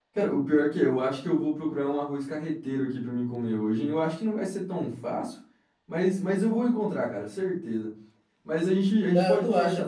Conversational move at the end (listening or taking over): taking over